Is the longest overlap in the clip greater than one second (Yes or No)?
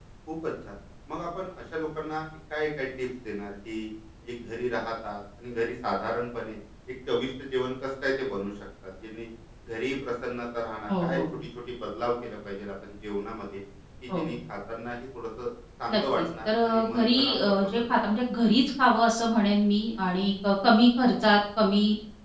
Yes